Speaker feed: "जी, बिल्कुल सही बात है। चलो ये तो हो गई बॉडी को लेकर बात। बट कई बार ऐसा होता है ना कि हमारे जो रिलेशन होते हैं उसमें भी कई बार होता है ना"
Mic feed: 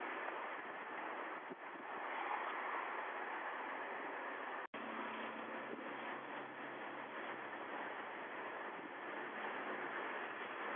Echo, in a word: none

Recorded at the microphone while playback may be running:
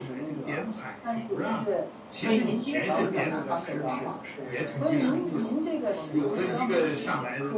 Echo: present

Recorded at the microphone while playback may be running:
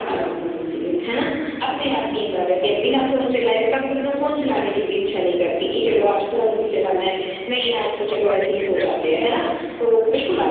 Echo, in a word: present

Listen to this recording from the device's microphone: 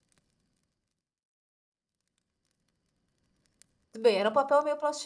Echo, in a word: none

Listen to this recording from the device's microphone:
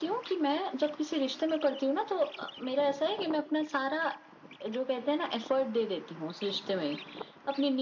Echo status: present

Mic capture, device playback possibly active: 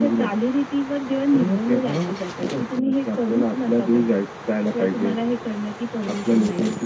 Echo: present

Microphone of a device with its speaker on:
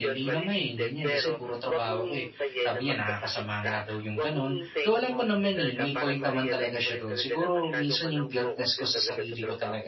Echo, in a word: present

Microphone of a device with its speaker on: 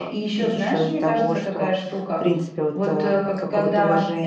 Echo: present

